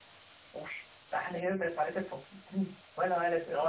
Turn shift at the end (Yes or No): Yes